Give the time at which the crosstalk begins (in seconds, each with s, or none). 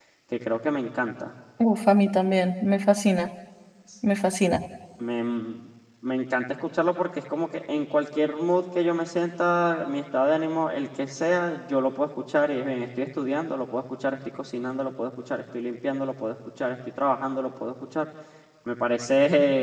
none